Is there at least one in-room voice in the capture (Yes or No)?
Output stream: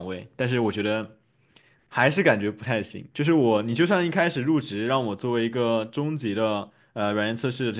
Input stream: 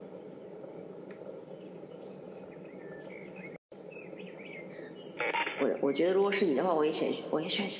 Yes